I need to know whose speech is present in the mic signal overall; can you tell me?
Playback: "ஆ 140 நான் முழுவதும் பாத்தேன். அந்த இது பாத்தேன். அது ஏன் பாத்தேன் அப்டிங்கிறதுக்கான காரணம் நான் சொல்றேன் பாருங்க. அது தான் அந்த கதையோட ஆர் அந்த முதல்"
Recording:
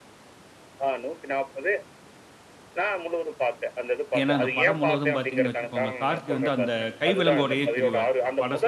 both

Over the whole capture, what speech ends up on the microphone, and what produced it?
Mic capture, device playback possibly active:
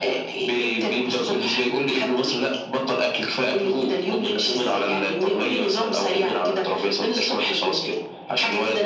echo only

